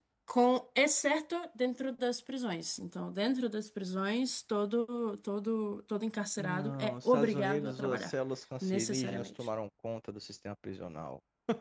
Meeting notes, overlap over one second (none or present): present